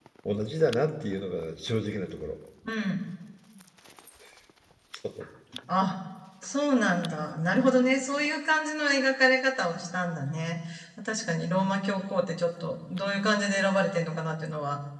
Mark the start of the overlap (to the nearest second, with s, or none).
none